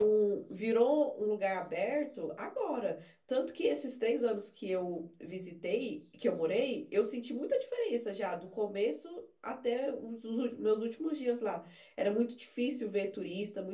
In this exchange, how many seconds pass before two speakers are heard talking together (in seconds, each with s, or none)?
none